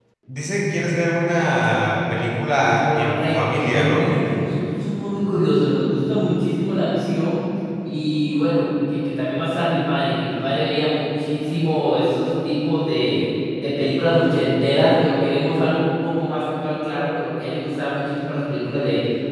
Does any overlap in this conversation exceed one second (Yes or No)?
Yes